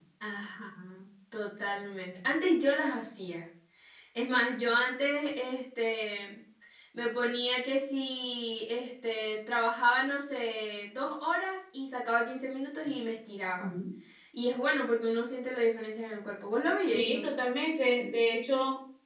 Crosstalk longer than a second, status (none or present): none